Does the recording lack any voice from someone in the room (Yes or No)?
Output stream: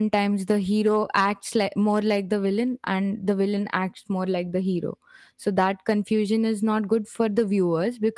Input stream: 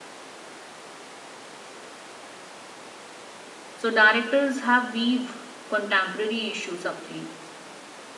No